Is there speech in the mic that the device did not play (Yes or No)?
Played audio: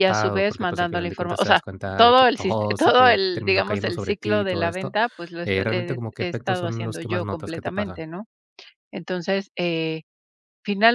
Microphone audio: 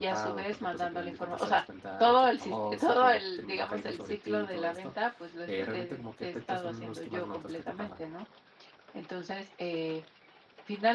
No